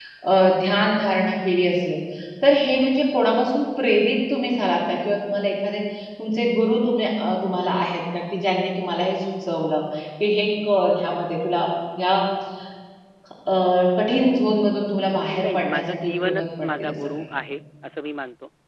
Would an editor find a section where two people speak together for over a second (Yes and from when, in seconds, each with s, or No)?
Yes, from 15.2 s